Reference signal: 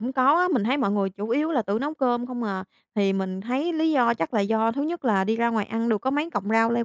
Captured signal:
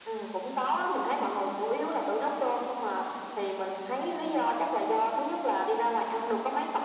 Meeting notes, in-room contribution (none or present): none